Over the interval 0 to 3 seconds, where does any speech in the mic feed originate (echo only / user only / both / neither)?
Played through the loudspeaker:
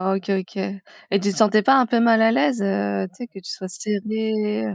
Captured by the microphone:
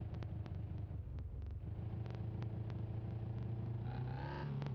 neither